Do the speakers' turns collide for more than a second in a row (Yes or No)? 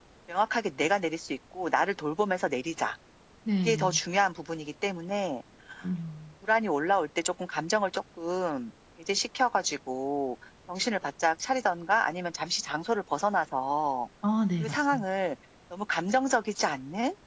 No